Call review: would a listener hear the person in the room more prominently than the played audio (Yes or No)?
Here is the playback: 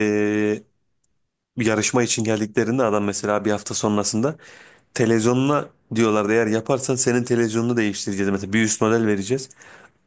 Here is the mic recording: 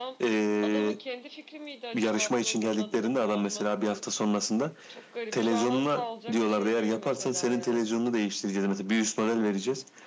No